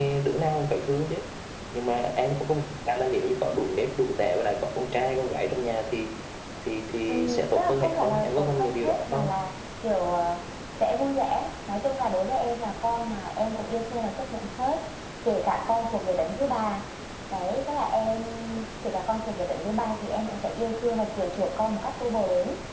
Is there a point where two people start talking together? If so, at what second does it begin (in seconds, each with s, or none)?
7.1 s